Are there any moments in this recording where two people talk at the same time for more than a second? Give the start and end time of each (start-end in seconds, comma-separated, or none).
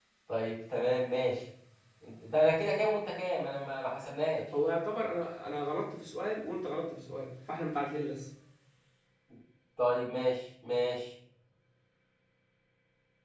none